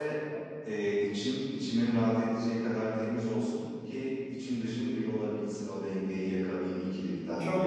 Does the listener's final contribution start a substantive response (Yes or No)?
Yes